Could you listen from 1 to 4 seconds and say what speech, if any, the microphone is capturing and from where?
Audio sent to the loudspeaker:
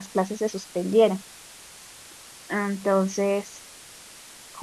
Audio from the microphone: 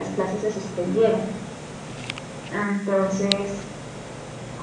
echo only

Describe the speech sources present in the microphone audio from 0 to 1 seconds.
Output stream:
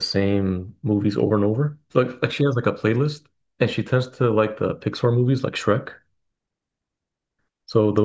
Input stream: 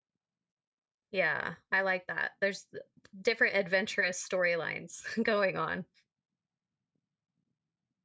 neither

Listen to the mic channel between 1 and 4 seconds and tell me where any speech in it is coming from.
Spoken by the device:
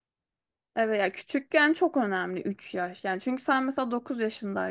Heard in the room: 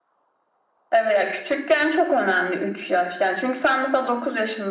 echo only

